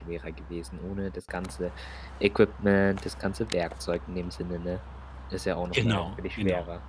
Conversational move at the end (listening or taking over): taking over